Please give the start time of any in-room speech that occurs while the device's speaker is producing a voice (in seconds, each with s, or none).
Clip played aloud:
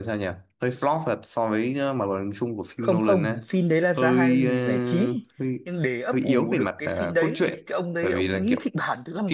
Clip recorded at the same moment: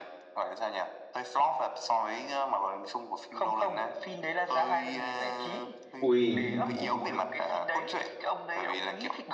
6.0 s